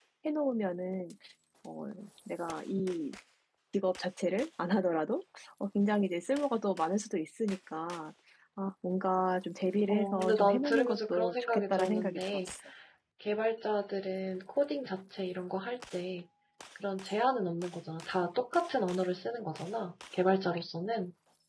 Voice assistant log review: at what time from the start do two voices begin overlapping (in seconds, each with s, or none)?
9.9 s